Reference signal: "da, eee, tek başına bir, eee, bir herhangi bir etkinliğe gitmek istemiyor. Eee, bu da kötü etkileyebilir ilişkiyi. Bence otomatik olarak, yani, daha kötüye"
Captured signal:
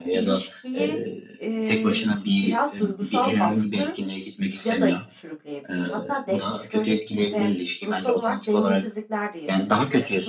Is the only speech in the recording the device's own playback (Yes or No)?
No